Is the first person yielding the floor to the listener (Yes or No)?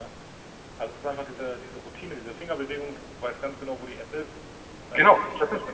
Yes